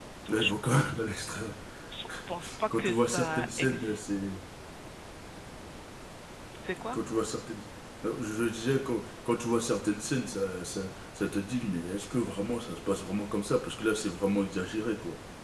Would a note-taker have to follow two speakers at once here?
Yes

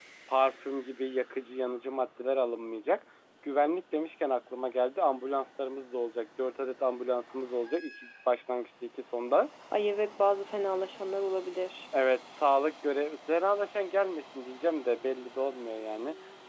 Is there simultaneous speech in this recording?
No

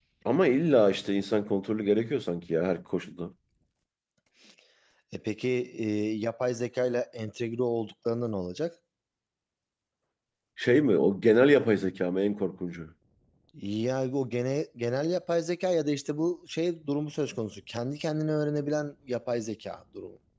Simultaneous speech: No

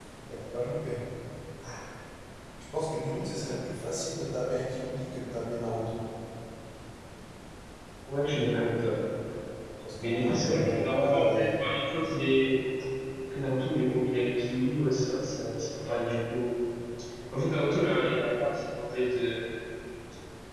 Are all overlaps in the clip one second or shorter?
No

